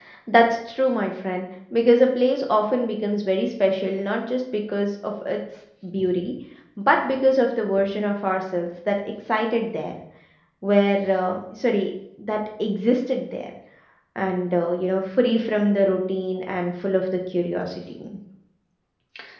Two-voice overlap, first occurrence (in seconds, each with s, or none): none